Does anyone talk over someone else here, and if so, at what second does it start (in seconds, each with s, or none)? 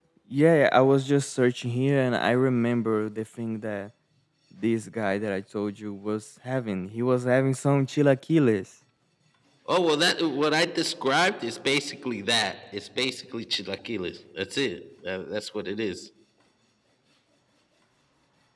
none